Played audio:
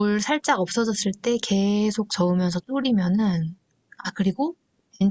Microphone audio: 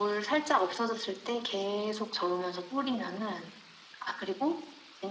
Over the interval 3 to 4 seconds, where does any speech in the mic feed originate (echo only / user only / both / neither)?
echo only